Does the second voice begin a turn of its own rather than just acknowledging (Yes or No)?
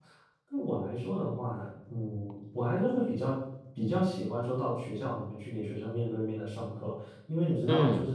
No